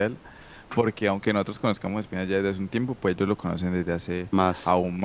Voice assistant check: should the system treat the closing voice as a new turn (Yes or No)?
No